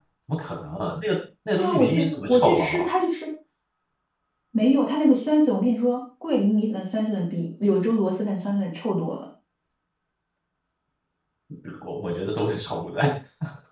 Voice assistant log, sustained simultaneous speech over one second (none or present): present